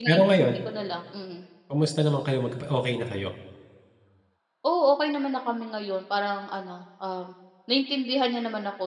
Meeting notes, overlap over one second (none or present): none